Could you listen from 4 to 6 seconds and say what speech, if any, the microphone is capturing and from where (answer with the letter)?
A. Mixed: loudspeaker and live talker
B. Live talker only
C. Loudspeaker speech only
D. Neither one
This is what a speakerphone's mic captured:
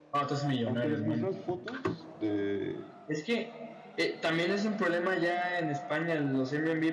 C